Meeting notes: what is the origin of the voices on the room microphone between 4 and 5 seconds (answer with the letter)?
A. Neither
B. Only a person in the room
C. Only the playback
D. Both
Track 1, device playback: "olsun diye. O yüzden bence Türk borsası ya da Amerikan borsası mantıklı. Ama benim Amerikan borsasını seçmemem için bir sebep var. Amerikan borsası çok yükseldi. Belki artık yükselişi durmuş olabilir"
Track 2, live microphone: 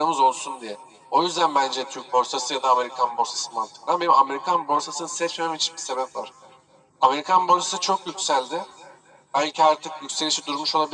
C